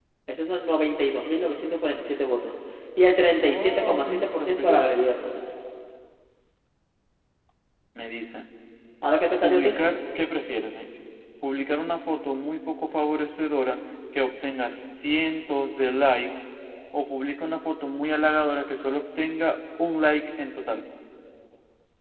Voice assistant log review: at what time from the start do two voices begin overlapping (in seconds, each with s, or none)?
3.4 s